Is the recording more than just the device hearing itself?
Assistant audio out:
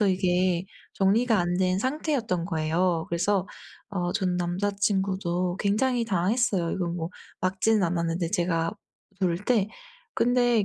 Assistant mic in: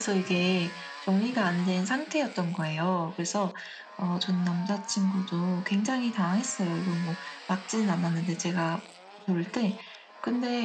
No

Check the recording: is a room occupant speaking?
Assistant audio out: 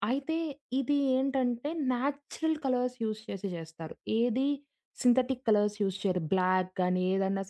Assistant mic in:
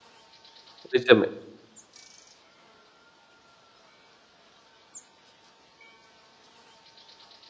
Yes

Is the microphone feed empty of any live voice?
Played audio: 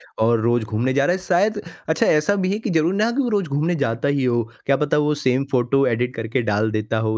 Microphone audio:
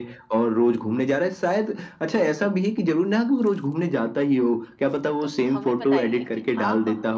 No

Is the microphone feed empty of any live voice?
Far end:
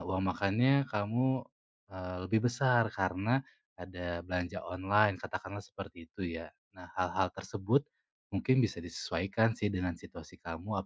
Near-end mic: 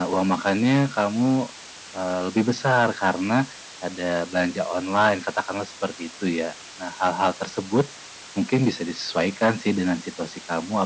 Yes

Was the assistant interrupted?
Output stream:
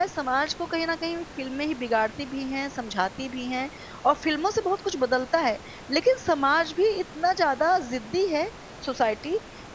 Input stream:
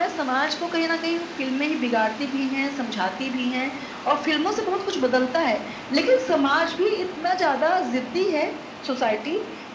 No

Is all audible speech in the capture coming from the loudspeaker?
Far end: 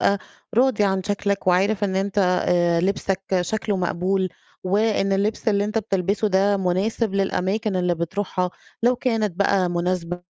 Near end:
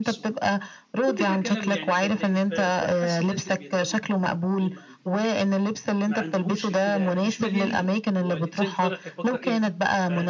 No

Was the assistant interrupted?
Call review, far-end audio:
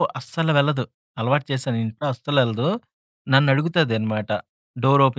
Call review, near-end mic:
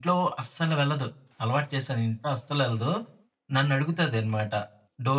No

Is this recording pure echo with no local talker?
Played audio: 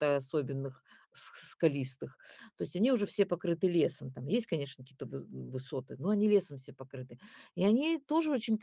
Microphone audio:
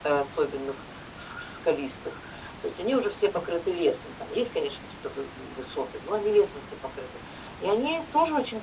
Yes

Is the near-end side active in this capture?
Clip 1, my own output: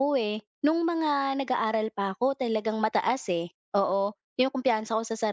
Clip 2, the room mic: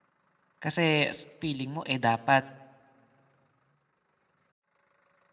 Yes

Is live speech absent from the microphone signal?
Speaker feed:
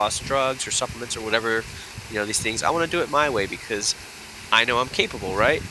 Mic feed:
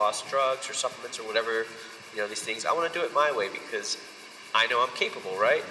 Yes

